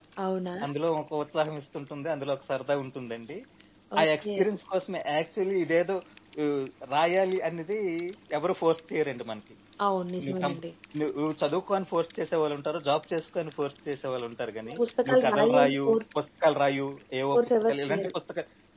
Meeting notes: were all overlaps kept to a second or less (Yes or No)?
No